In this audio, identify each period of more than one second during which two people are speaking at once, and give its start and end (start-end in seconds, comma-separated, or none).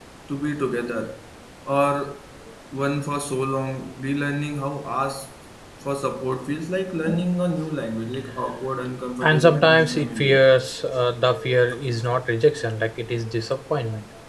9.2-10.4